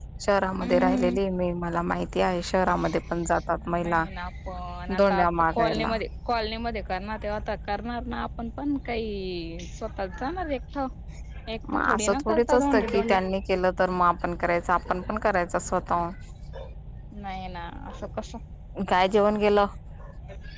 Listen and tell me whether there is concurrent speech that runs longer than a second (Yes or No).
Yes